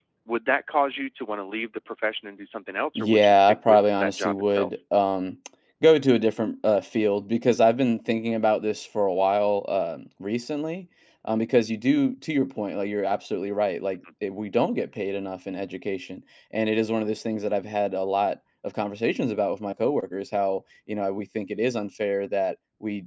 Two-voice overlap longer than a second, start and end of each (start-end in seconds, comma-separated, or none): 3.0-4.7